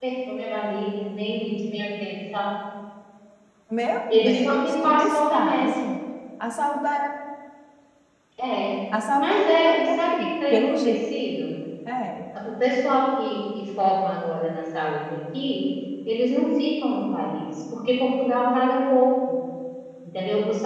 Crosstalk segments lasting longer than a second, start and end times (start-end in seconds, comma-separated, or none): 4.1-5.8, 9.2-11.0